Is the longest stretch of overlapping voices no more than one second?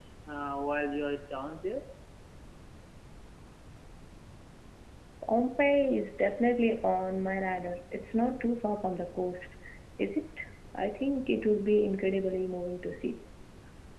Yes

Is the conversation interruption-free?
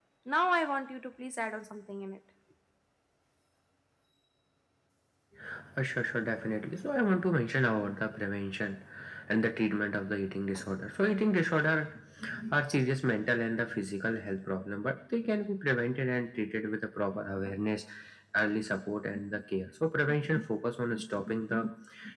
Yes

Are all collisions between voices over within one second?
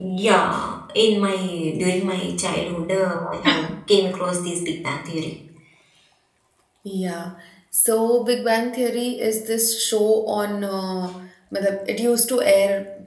Yes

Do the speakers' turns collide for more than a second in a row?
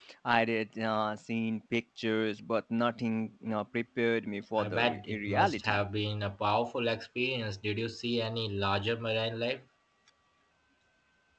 Yes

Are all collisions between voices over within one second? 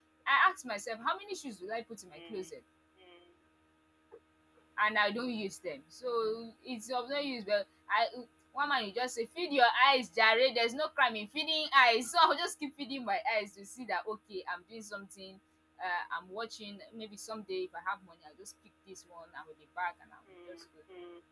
Yes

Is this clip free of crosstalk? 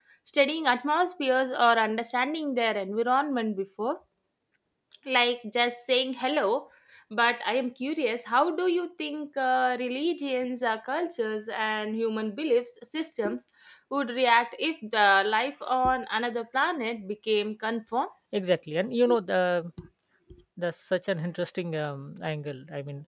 Yes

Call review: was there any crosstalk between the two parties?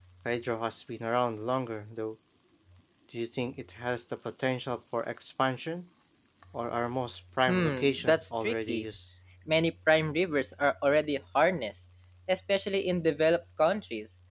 Yes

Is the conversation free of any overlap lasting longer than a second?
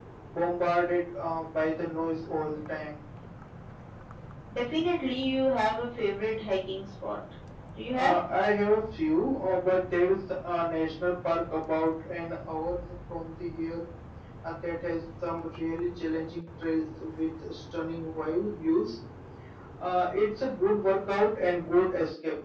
Yes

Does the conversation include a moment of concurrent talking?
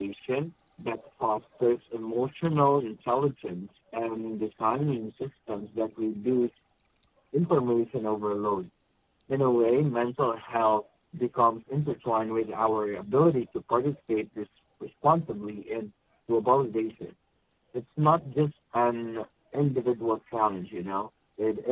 No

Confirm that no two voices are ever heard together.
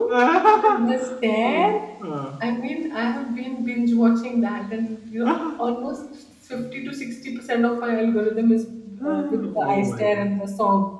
No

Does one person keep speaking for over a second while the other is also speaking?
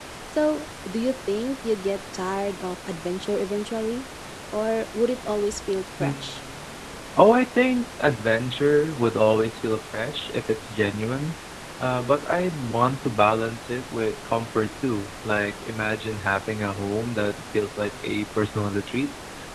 No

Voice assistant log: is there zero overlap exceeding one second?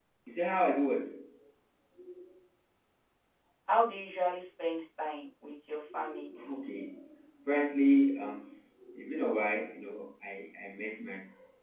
Yes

